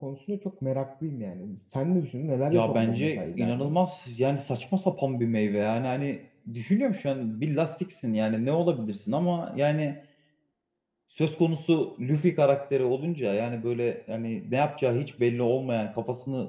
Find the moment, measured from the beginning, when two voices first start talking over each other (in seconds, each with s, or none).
2.5 s